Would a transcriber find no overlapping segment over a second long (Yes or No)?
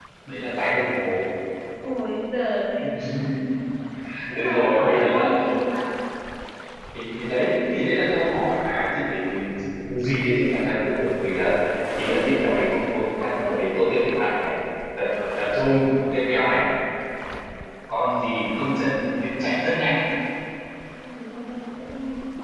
No